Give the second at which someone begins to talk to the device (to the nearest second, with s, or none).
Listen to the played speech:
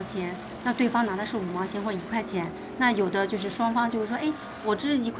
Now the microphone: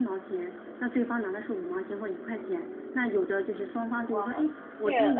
4 s